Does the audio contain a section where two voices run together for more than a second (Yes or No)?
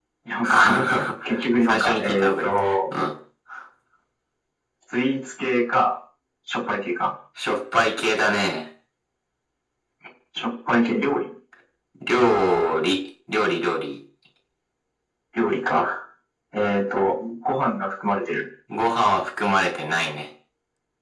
Yes